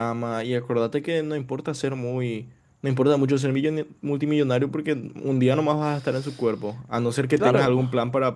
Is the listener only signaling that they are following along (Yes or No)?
Yes